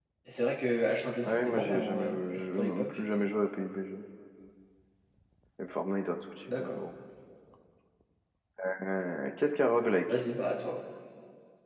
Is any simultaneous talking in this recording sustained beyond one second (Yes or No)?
Yes